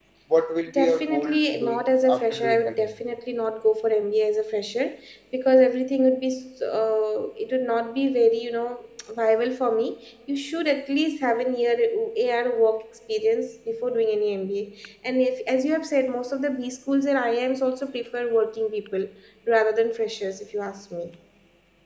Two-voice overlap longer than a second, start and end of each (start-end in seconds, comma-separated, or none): 0.7-2.9